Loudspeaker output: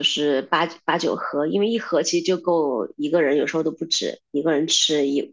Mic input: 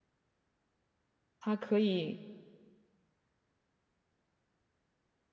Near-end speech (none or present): present